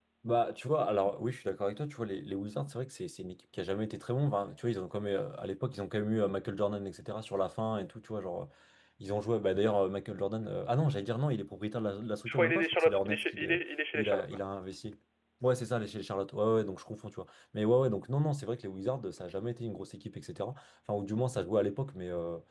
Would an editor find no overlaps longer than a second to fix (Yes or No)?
No